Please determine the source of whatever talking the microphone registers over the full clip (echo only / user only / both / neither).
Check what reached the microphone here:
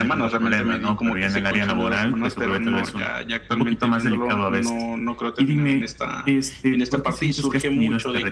echo only